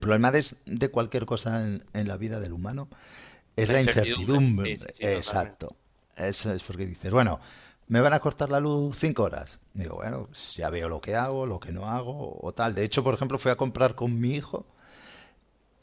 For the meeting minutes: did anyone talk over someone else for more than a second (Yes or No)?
Yes